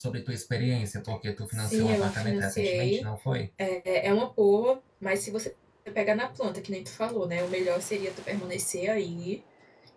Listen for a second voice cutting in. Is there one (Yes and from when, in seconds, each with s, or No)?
Yes, from 1.5 s